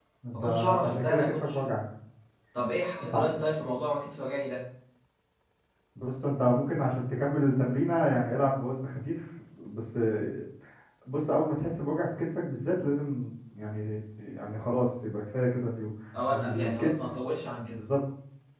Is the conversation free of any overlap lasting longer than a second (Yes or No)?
No